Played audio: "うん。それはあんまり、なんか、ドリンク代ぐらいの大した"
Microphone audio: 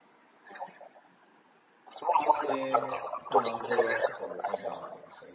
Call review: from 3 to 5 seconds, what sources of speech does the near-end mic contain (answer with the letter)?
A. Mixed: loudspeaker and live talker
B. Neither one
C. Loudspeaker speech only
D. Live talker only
A